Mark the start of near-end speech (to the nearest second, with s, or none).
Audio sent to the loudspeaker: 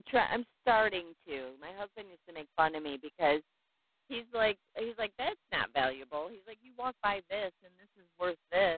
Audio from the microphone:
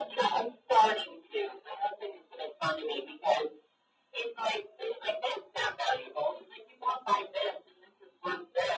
none